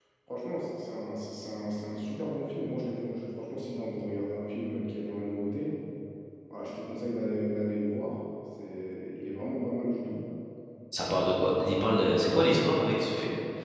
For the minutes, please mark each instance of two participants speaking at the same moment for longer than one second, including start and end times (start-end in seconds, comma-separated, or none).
11.2-12.5